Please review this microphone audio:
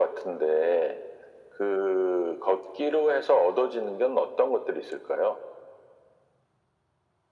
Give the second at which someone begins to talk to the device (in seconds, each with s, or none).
none